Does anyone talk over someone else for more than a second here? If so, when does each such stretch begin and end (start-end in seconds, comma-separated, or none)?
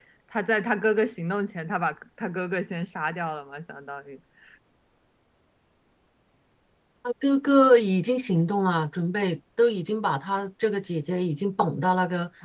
none